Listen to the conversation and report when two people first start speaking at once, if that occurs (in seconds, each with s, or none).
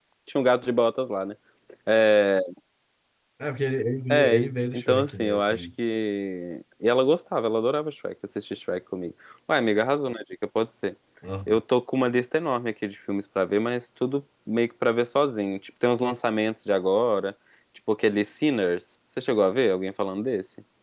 4.1 s